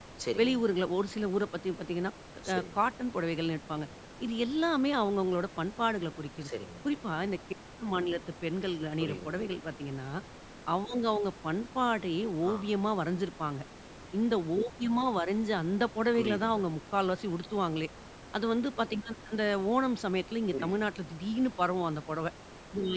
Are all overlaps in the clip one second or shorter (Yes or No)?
Yes